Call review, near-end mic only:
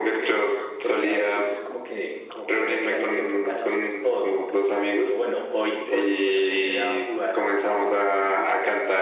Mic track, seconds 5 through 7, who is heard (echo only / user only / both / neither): echo only